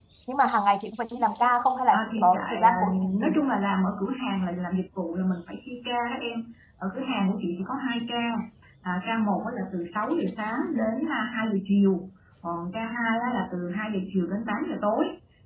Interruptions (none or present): present